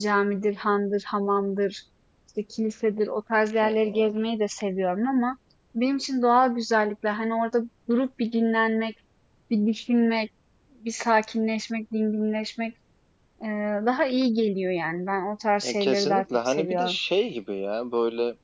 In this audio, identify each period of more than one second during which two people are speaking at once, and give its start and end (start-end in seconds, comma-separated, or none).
15.6-17.0